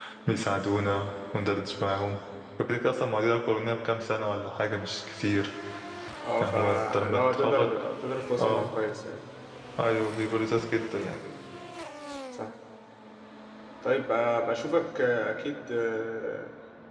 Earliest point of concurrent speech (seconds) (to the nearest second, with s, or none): 6 s